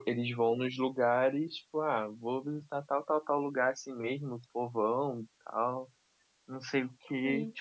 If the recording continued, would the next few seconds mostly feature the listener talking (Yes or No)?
No